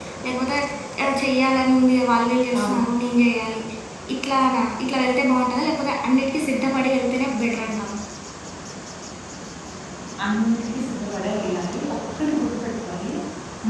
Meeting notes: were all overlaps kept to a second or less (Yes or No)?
Yes